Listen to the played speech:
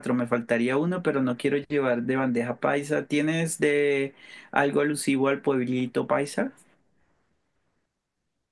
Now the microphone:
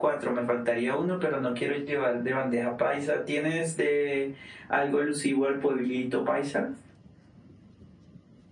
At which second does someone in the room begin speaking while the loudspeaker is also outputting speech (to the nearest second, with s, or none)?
none